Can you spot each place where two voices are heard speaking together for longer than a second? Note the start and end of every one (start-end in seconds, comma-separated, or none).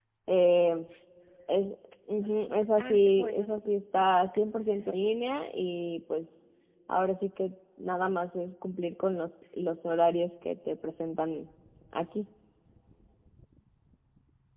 2.2-4.0